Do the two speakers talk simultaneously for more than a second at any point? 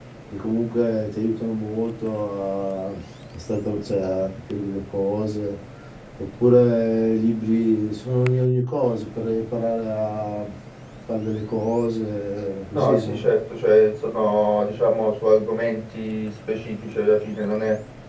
No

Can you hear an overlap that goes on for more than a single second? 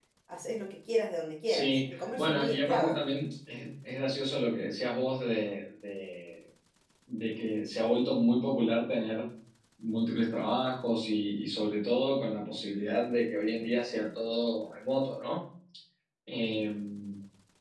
Yes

